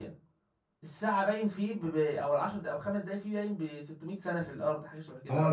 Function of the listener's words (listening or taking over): taking over